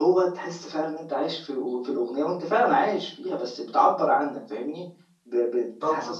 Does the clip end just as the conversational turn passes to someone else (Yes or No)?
No